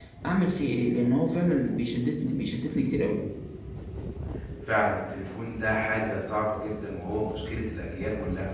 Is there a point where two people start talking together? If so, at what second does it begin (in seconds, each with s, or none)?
none